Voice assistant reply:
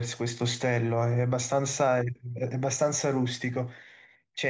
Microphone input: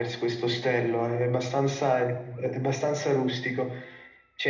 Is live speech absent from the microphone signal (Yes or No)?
Yes